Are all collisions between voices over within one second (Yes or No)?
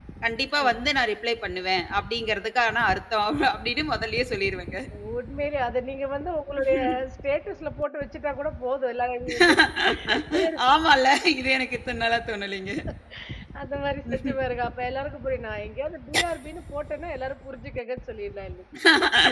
Yes